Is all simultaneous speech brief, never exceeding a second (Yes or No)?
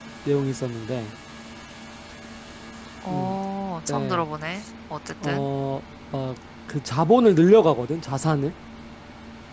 Yes